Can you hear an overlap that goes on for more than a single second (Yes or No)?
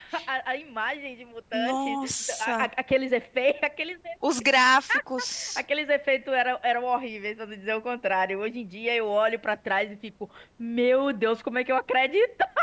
No